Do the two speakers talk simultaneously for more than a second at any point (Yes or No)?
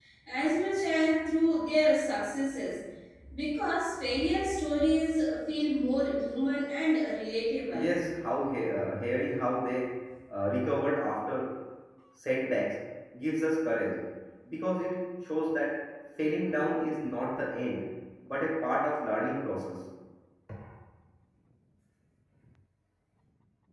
No